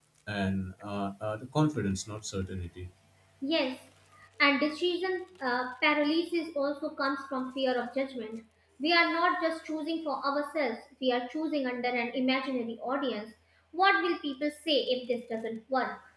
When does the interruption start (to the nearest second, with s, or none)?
none